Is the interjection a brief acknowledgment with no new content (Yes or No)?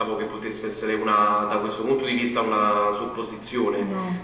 Yes